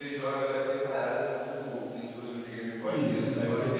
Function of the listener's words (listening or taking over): taking over